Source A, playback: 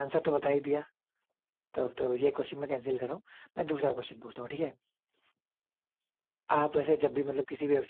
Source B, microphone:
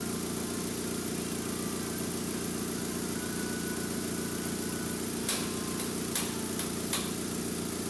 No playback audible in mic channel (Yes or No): Yes